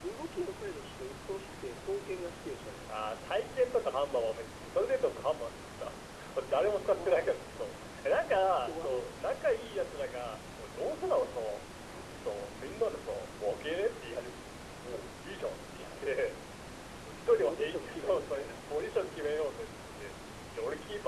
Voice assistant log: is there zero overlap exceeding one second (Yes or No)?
No